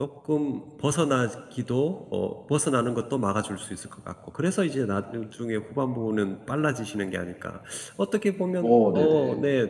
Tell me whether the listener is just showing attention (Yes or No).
Yes